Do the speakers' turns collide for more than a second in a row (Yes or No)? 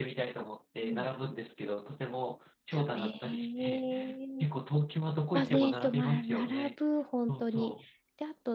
Yes